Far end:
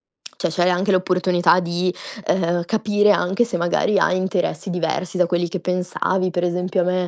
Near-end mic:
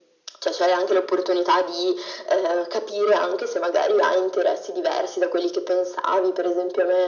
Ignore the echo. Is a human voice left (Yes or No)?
No